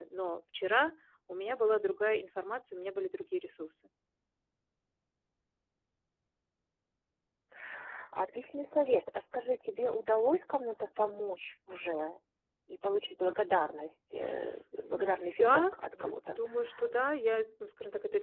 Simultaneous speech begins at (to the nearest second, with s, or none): 15 s